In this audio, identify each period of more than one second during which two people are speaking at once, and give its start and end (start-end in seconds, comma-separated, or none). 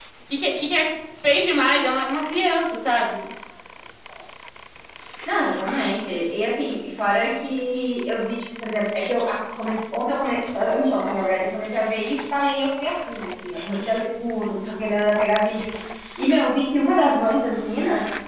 none